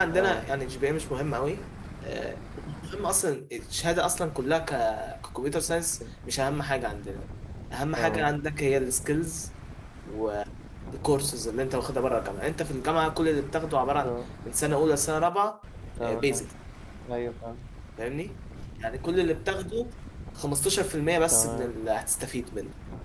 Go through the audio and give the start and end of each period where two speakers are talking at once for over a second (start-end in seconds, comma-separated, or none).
none